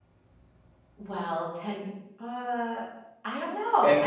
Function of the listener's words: taking over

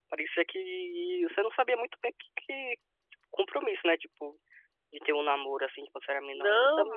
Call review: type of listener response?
taking over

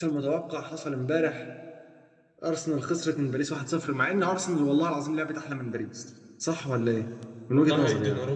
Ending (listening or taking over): taking over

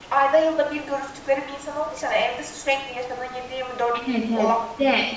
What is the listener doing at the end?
taking over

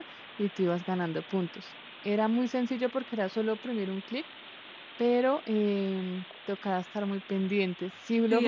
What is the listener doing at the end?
taking over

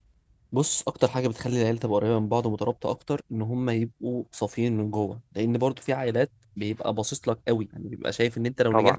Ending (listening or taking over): listening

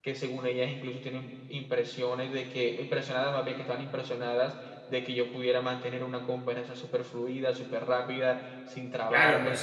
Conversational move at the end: taking over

